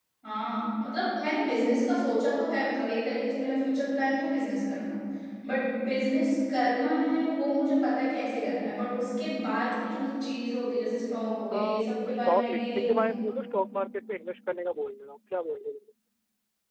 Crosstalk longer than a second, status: present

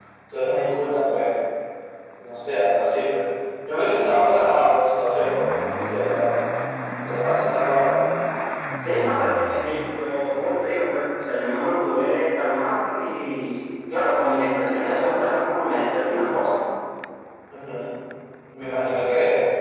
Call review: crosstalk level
none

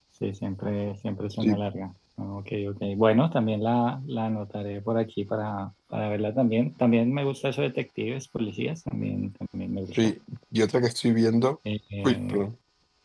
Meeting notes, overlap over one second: none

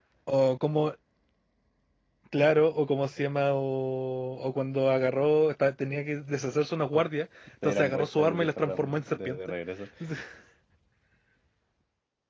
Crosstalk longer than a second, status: present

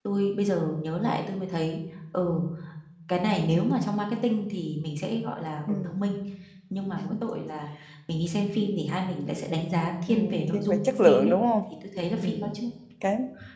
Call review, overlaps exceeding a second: present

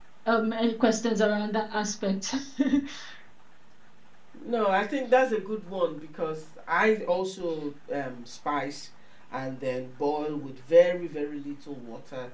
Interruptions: none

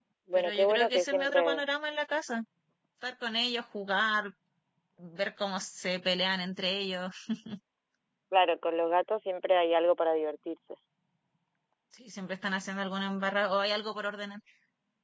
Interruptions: present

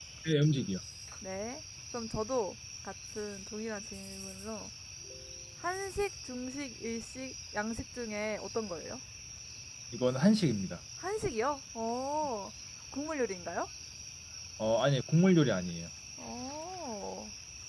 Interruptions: none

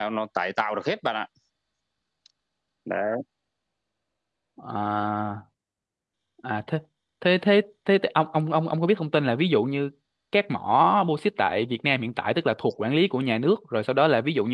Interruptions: none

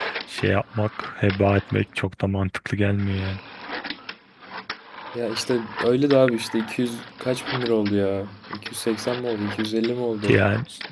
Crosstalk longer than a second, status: none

